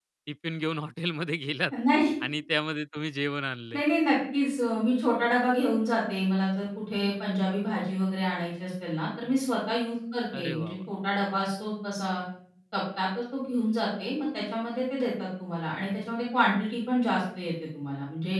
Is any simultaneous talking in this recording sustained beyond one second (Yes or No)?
No